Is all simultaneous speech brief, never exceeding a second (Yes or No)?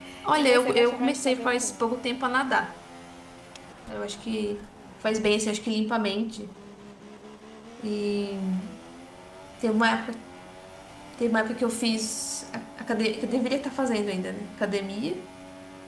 No